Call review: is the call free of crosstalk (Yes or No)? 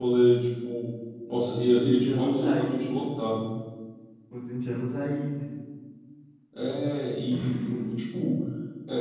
No